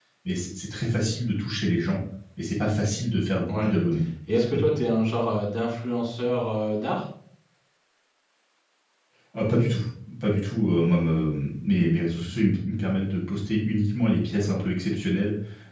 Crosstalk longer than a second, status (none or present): none